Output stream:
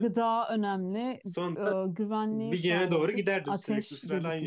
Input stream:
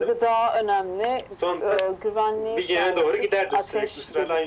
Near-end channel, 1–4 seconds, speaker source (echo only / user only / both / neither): echo only